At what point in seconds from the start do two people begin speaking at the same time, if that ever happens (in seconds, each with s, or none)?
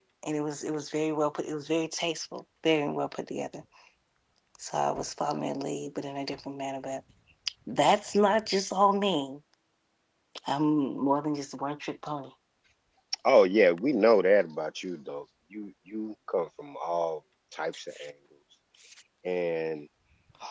none